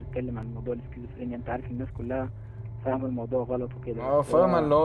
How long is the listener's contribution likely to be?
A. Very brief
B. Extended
B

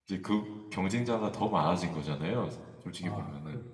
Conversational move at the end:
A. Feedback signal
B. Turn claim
B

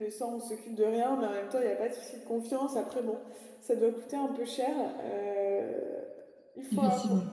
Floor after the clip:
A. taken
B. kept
B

